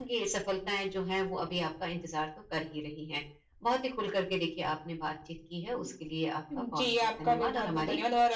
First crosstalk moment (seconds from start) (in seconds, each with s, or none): 6.5 s